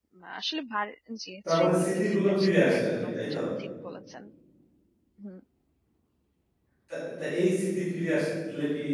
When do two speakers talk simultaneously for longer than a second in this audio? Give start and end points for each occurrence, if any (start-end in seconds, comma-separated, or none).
1.5-3.4